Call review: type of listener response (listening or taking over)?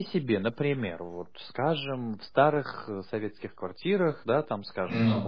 listening